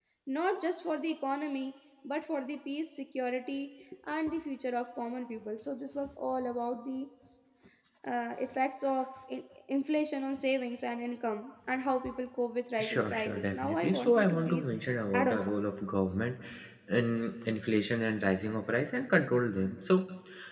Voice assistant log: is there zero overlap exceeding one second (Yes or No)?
No